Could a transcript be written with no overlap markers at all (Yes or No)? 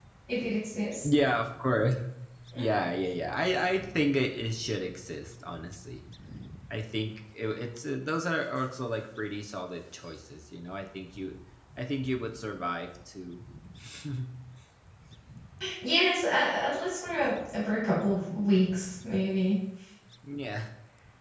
Yes